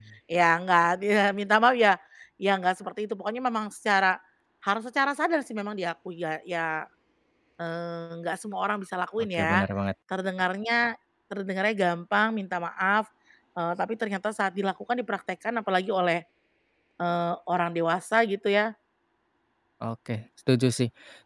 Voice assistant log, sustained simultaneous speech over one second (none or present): none